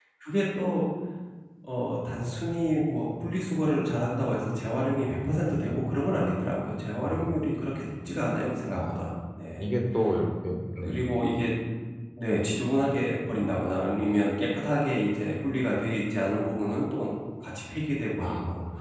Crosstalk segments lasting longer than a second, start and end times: none

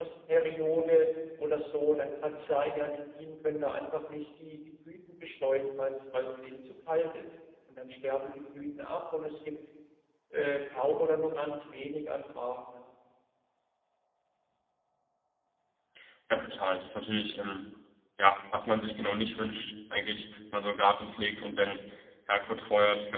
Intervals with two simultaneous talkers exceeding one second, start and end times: none

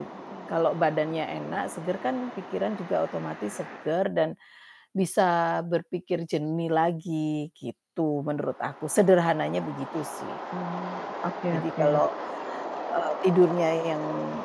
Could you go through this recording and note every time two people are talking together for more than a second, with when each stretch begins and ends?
none

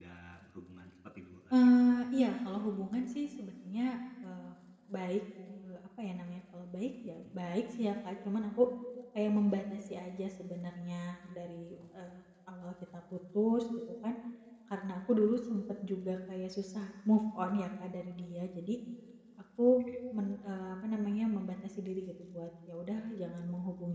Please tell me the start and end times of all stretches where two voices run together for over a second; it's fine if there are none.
none

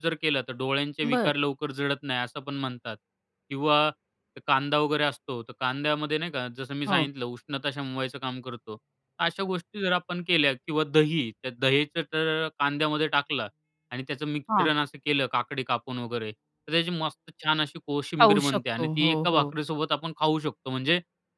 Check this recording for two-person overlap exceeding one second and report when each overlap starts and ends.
18.2-19.4

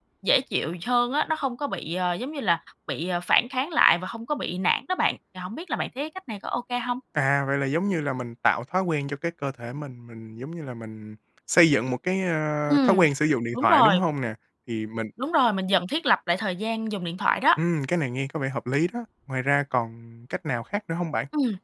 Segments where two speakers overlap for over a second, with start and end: none

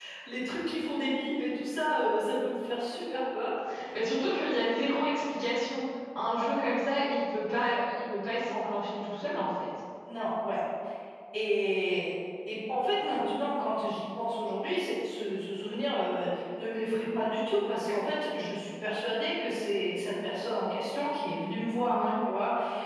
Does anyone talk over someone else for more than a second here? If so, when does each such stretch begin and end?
none

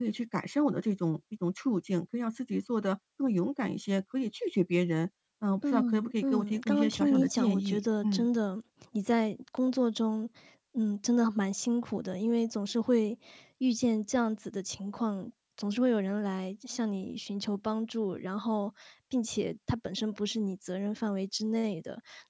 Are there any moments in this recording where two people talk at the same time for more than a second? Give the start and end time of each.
5.7-8.3

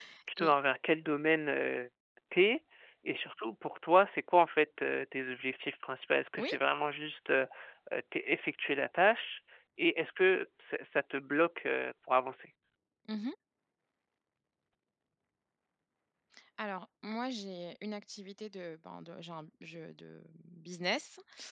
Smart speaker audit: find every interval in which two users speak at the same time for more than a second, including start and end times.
none

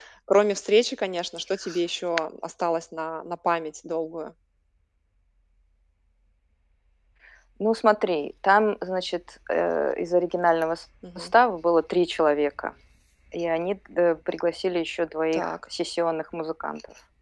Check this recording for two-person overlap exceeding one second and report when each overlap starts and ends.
none

